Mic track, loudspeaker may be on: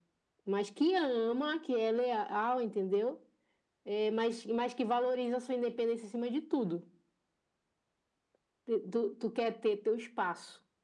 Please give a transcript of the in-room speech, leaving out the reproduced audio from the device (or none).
none